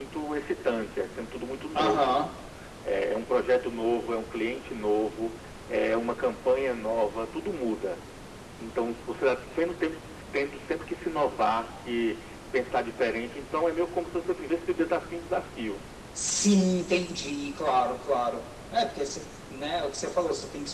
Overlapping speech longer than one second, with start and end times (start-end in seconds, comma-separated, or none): none